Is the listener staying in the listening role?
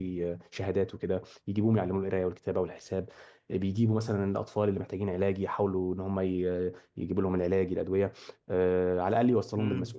No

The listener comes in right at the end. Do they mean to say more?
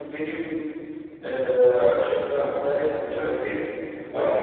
No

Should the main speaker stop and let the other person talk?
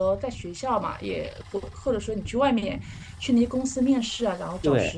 Yes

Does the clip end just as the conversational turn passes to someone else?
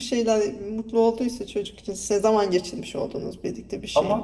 Yes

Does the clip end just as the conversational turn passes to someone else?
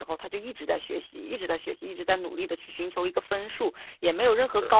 No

